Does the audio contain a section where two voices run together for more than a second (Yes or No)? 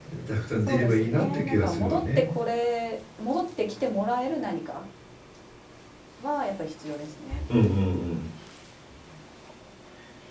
Yes